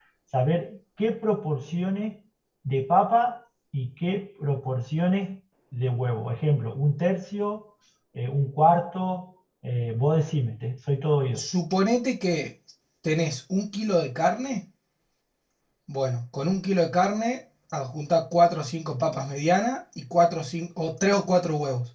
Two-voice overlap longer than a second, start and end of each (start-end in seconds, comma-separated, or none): none